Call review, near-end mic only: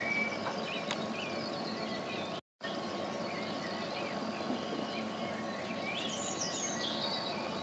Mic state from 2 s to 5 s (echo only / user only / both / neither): neither